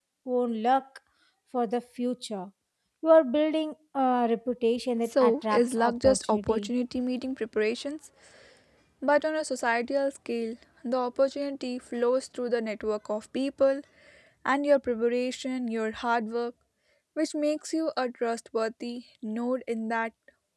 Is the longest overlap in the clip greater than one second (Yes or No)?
Yes